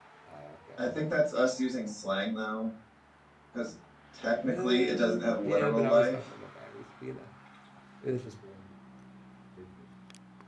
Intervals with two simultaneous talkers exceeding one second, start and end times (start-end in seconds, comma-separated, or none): 4.5-6.2